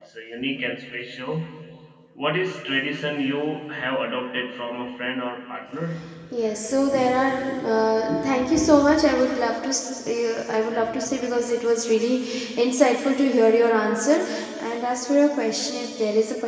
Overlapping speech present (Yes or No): No